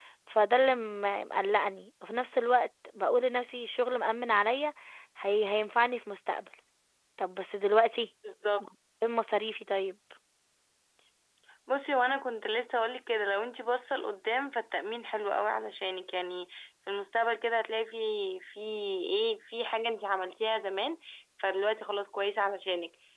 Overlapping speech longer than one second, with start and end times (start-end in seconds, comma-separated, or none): none